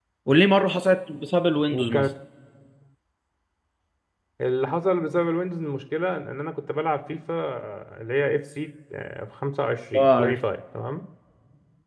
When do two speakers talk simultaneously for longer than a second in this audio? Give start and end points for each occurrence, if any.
none

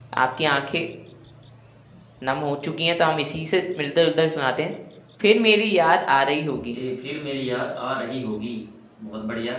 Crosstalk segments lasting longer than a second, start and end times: none

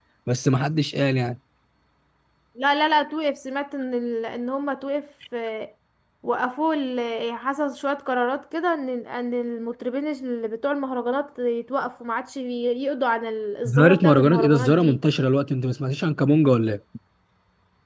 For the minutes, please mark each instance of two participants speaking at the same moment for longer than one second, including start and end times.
13.7-15.0

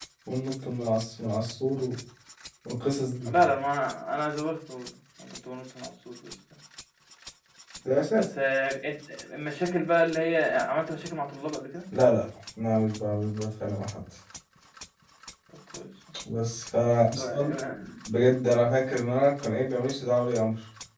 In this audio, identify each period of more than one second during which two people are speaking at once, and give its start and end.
none

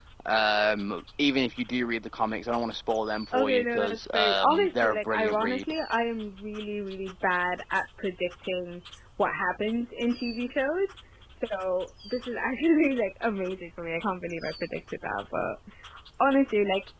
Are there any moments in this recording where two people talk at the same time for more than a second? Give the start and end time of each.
3.3-5.7

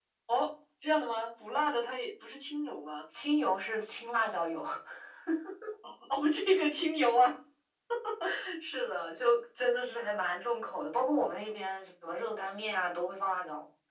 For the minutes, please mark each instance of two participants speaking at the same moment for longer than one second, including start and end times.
none

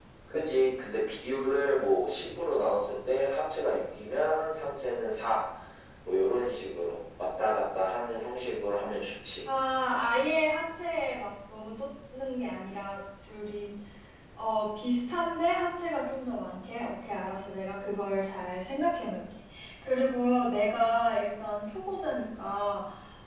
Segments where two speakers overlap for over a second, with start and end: none

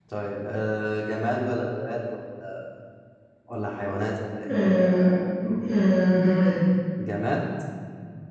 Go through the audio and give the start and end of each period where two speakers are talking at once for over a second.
none

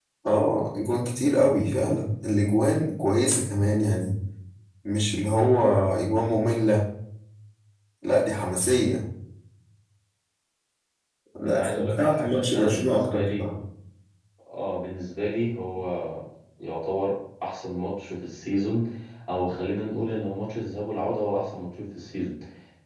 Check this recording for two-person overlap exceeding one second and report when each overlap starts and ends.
11.4-13.4

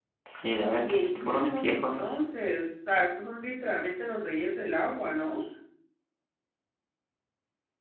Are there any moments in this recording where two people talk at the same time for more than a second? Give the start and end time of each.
0.8-2.0

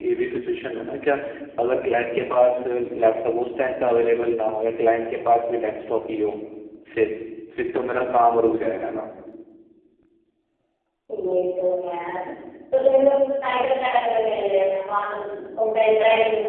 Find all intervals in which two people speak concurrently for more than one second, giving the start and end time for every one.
none

